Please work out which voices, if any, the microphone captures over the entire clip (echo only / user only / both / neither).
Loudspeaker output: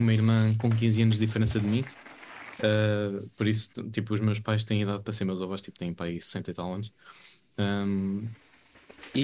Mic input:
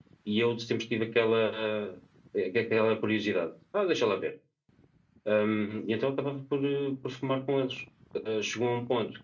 user only